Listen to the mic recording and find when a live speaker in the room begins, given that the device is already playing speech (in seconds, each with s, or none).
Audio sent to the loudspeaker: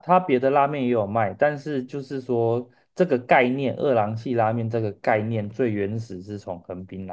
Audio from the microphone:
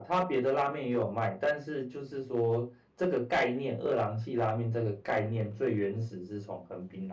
none